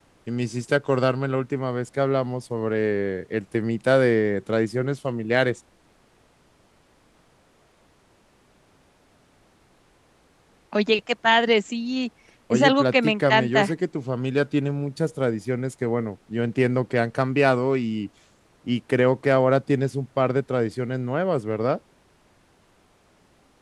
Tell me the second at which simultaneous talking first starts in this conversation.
13 s

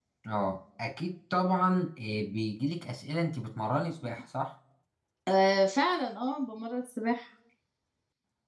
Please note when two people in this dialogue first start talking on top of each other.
none

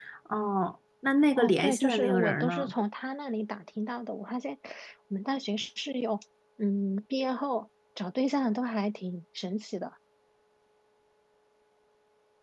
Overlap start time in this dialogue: 1 s

